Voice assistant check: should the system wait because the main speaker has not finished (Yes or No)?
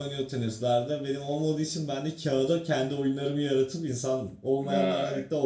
Yes